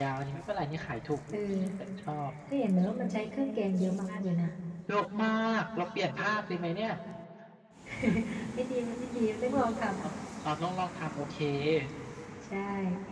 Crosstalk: none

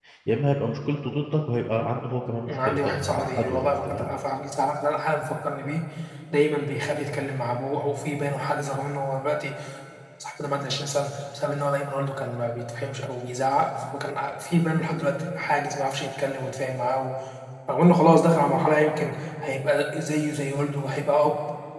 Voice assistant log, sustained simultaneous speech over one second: present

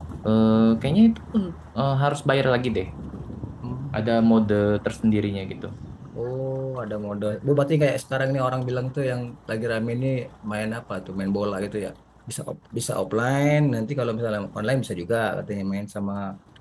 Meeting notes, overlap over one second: none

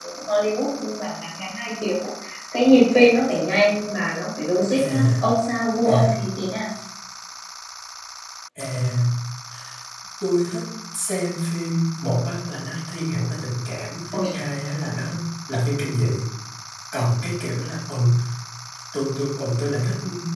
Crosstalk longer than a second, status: none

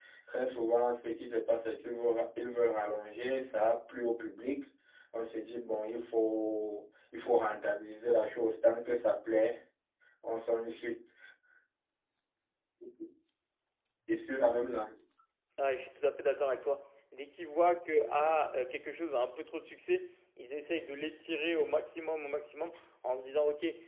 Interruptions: none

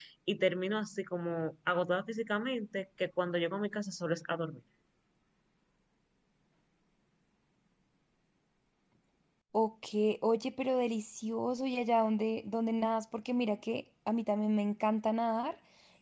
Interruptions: none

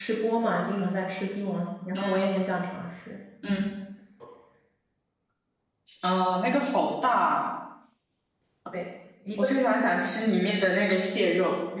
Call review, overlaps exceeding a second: none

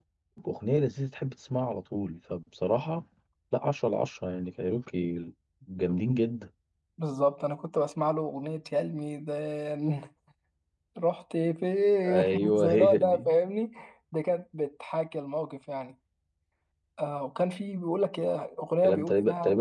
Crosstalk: present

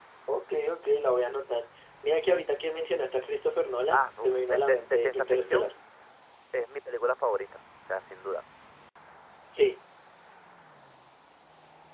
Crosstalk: present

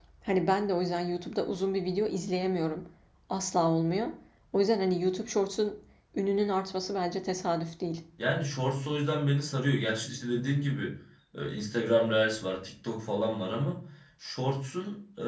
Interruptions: none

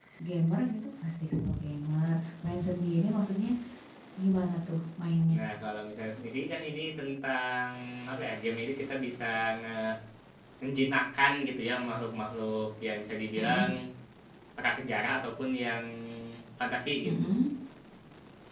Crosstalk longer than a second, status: none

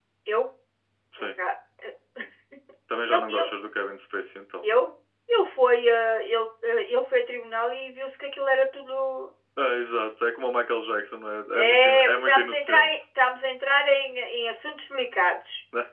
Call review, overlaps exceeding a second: present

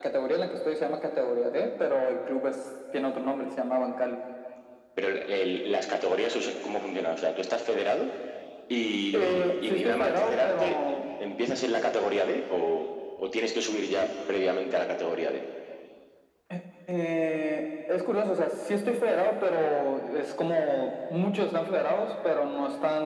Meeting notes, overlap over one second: present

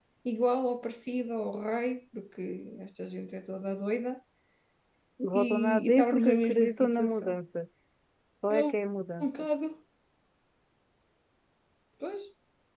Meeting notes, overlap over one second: present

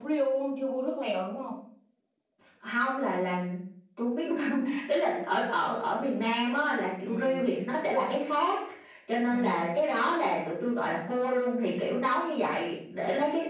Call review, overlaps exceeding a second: none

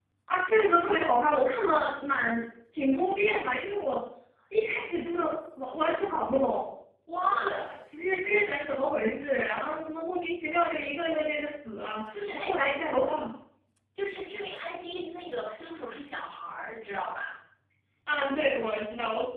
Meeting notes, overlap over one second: none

